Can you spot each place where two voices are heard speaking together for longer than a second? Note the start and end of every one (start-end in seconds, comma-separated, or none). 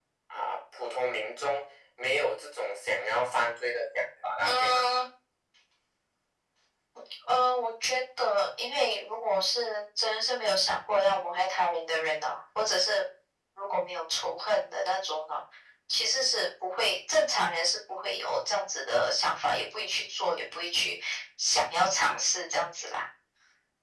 none